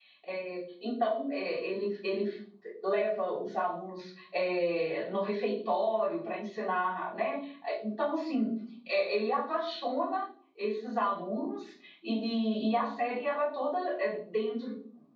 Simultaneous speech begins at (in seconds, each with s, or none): none